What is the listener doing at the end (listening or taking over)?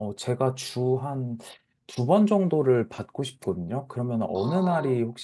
listening